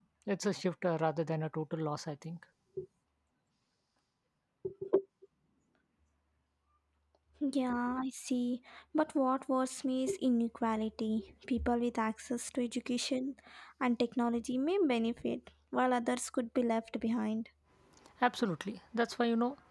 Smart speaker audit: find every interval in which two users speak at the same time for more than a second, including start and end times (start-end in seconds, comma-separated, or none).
none